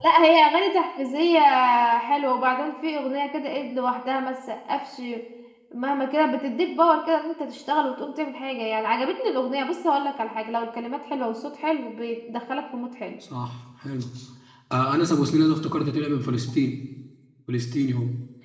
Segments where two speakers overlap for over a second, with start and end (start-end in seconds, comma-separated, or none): none